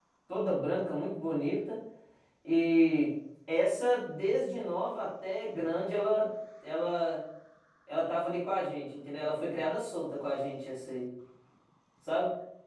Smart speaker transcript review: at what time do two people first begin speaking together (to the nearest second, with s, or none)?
none